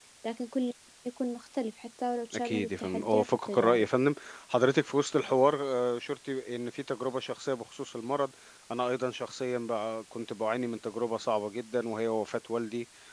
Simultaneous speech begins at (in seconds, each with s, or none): 2.3 s